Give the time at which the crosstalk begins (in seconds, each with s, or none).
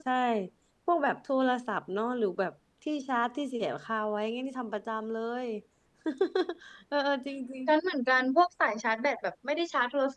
none